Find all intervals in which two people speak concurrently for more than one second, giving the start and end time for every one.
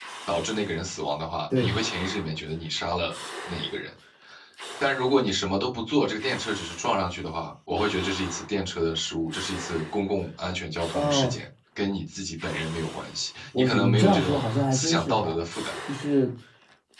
13.6-15.4

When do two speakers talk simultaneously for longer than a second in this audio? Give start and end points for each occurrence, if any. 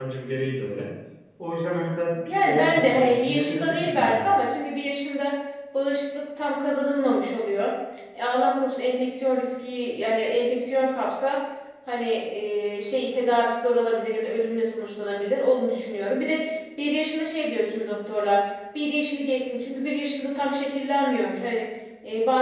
2.3-4.3

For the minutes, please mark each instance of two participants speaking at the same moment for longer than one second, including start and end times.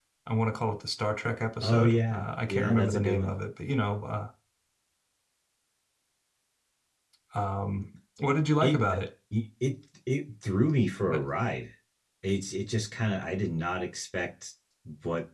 1.6-3.4

